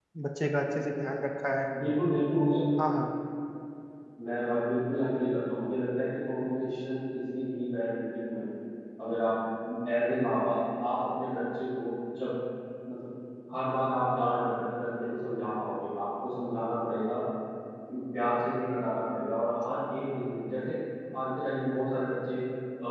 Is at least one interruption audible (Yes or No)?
No